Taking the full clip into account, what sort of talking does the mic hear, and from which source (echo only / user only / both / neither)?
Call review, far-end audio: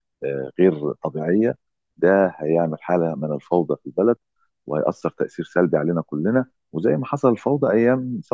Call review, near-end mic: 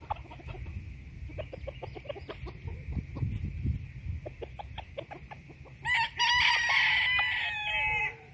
neither